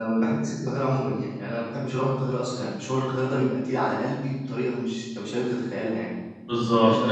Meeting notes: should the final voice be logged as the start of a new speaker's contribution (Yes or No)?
Yes